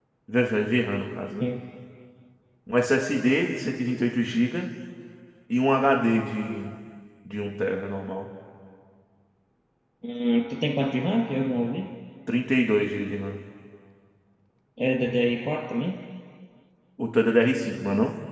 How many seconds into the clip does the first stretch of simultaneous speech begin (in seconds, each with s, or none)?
none